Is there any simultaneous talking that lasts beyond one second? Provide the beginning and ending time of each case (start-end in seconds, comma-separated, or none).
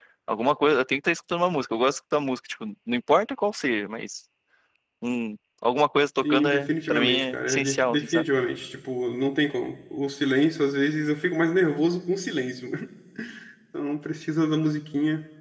6.2-8.2